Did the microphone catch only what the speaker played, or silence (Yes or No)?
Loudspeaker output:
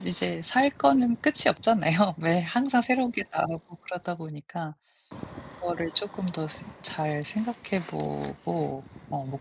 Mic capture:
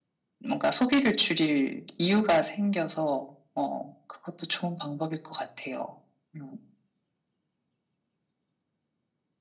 No